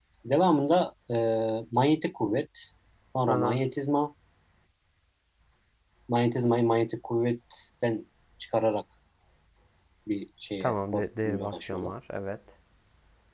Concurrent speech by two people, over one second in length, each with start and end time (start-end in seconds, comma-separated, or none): 10.6-11.9